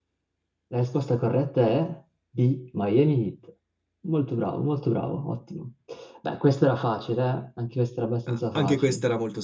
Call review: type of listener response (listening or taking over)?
taking over